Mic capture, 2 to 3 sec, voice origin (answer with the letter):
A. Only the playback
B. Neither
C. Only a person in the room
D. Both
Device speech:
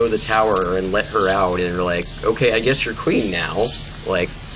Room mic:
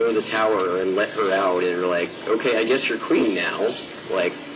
A